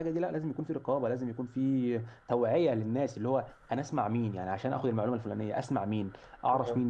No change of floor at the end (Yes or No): Yes